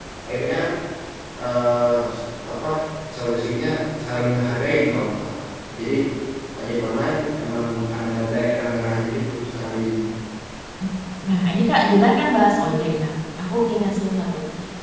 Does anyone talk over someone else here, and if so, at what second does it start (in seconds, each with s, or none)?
none